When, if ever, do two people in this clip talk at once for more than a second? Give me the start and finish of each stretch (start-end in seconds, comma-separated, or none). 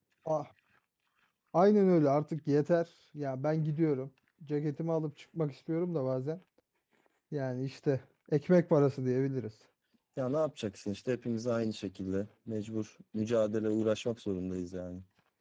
none